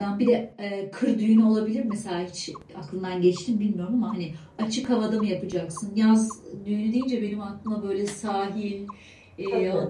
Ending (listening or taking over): listening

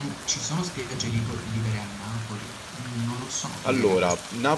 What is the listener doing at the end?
taking over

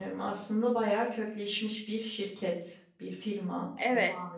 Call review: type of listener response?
taking over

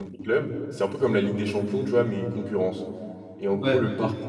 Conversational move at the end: listening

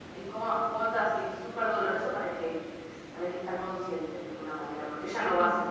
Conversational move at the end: listening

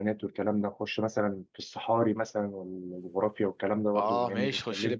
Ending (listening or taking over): taking over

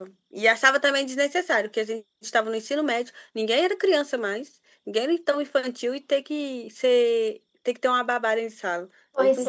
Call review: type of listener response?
taking over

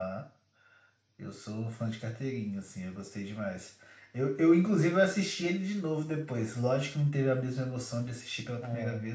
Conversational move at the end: listening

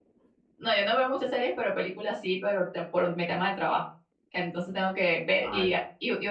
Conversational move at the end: listening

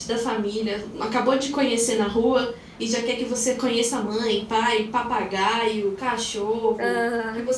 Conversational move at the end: listening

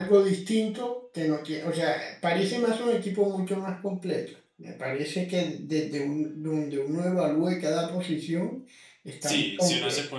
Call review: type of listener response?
taking over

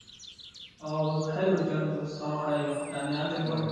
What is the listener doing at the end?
listening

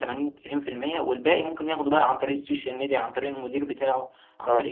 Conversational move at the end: listening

